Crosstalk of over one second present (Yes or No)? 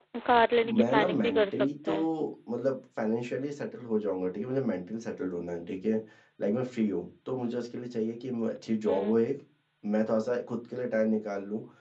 Yes